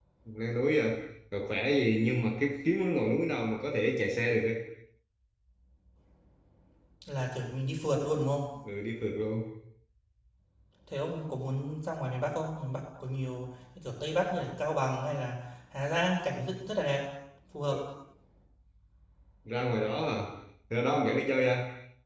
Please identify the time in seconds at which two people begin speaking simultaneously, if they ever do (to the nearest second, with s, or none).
none